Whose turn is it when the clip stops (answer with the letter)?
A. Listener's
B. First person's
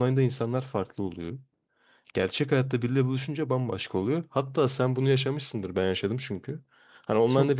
B